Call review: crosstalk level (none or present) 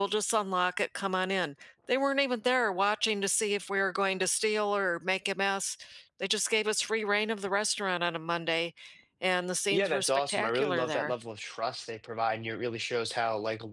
present